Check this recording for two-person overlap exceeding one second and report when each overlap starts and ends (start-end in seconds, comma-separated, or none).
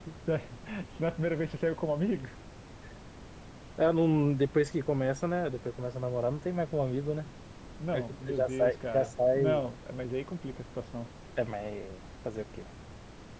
7.9-9.6